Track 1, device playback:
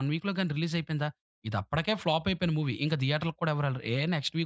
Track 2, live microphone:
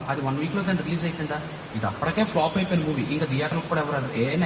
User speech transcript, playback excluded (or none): none